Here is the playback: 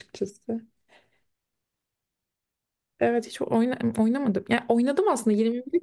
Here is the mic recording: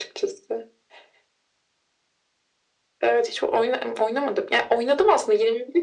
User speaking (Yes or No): No